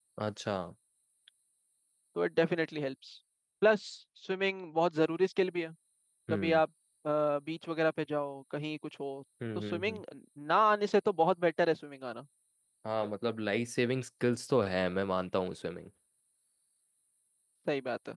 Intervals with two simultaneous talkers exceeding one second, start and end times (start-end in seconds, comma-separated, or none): none